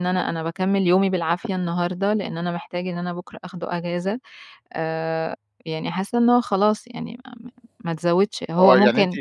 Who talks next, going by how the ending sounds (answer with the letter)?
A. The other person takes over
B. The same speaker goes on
A